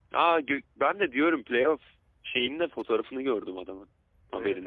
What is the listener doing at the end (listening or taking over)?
taking over